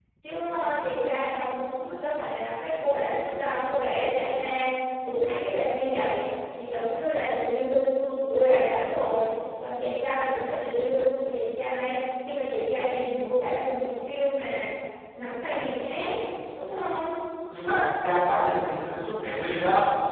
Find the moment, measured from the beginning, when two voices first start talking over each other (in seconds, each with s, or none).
none